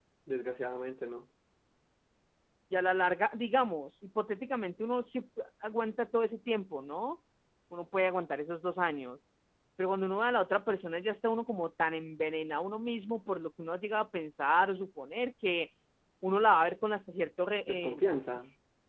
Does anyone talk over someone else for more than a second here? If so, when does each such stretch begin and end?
none

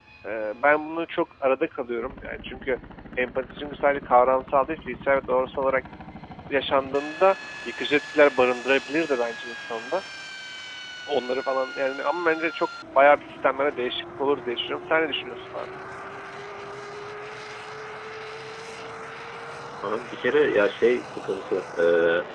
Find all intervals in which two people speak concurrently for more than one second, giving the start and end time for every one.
none

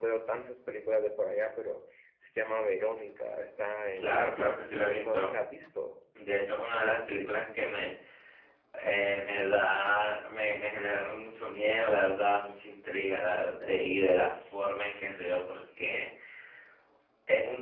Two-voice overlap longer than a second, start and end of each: 4.0-5.3

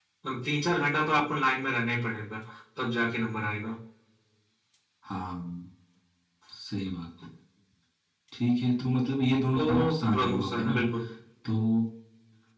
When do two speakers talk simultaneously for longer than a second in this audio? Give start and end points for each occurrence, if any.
9.6-10.8

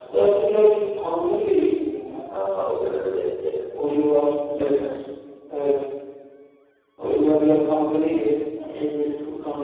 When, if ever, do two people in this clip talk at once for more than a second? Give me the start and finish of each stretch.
none

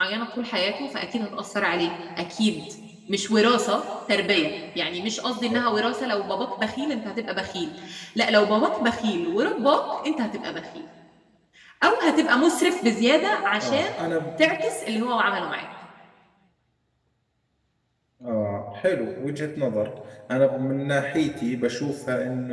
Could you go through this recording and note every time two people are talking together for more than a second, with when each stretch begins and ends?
none

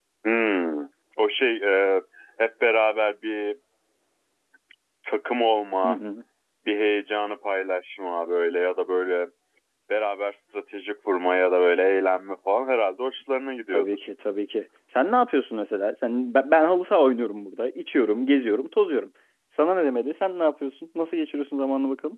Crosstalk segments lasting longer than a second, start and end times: none

